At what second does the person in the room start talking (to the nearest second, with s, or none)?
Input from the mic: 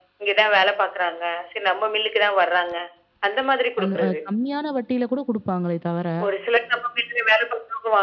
4 s